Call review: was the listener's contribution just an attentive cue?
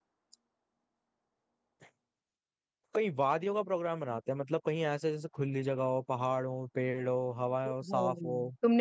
No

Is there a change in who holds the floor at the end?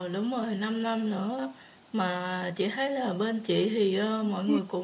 No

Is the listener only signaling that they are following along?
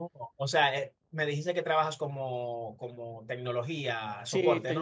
No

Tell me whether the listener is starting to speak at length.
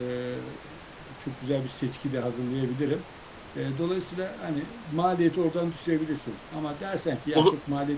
No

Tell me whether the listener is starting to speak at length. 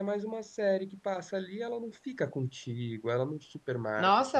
Yes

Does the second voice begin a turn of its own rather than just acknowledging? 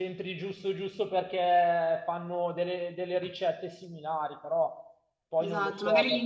Yes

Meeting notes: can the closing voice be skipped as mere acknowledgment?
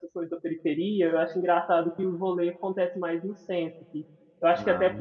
Yes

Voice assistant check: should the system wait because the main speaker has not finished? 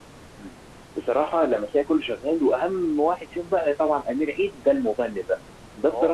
Yes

